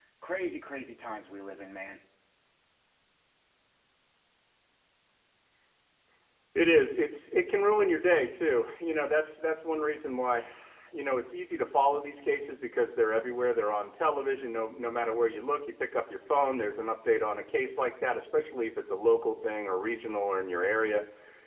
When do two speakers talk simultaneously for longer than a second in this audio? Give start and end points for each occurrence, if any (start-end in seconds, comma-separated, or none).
none